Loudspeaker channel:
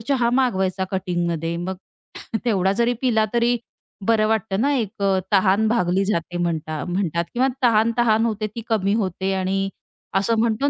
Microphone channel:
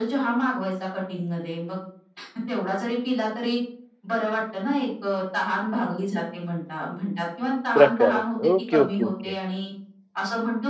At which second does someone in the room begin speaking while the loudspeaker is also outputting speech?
7.7 s

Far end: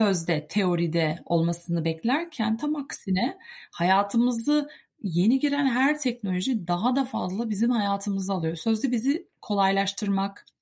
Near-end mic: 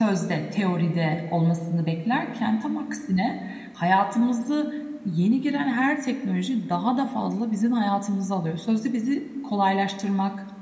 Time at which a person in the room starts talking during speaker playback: none

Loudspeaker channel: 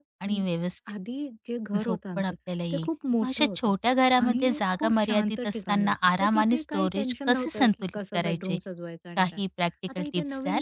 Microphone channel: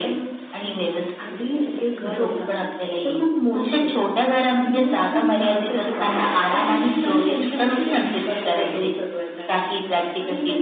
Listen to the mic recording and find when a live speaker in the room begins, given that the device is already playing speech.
none

